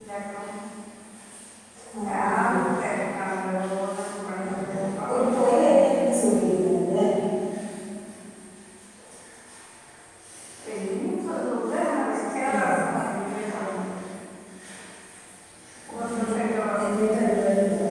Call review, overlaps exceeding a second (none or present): present